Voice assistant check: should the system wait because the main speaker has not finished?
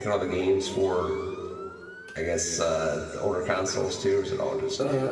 No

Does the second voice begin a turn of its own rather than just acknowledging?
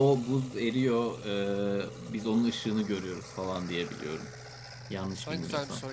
Yes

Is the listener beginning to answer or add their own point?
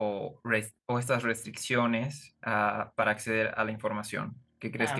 Yes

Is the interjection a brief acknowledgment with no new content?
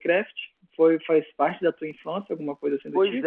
No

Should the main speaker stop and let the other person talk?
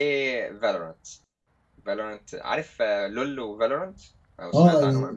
Yes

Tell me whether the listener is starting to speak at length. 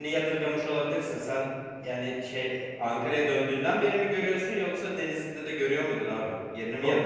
Yes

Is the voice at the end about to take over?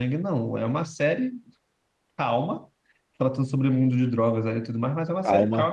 Yes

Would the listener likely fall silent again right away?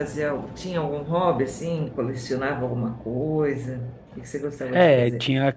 No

